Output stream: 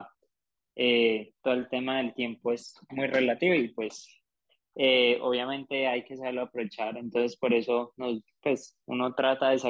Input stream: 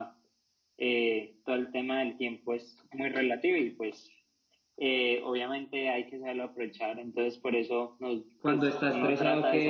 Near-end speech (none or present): present